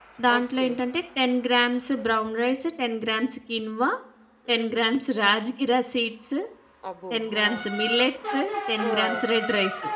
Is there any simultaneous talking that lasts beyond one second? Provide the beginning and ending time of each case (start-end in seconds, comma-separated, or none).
none